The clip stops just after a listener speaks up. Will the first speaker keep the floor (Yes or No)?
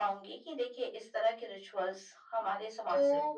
No